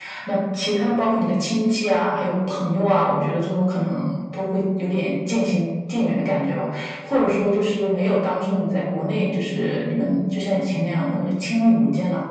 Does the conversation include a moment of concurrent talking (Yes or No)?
No